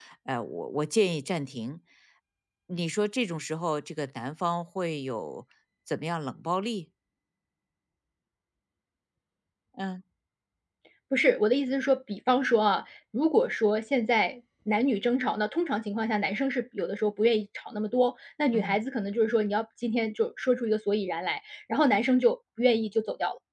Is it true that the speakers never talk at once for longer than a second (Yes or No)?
Yes